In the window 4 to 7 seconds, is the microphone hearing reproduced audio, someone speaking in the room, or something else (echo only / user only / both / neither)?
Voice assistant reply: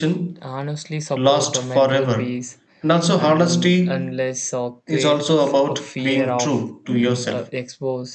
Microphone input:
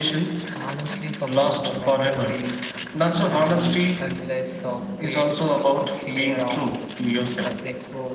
echo only